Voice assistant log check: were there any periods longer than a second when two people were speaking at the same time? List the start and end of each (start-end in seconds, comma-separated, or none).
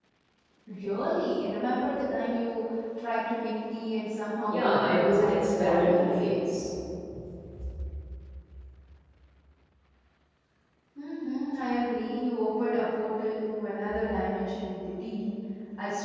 4.5-6.0